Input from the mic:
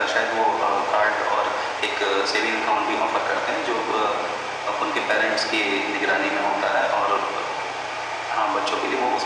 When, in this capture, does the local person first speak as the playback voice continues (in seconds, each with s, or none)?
none